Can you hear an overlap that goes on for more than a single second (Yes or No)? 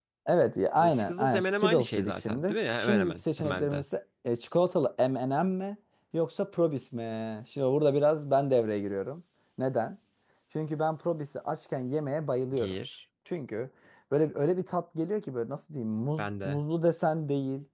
Yes